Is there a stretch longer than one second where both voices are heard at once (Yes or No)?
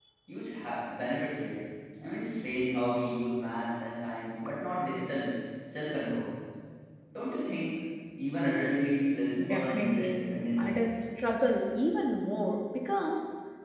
Yes